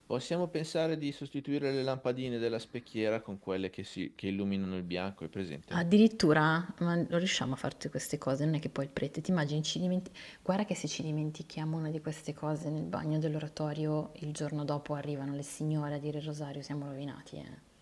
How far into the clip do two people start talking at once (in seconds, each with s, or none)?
none